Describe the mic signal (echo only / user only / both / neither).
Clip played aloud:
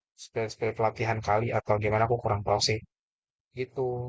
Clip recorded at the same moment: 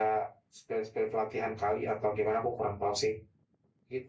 echo only